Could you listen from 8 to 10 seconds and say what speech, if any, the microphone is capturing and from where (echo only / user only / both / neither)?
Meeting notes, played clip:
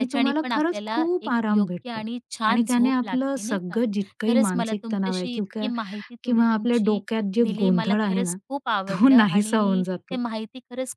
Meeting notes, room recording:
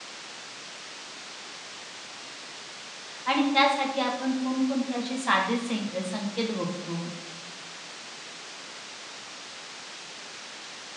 neither